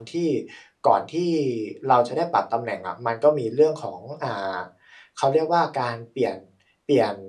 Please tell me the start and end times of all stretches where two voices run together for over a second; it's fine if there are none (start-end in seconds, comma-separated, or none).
none